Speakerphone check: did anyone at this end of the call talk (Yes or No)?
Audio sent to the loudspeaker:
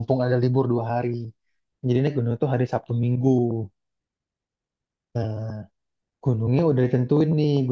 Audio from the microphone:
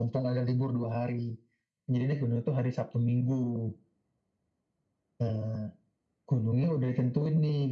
No